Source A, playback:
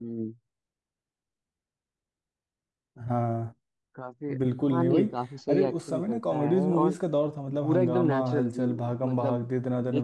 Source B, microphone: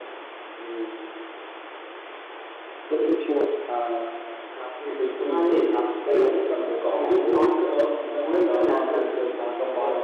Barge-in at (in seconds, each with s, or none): 2.9 s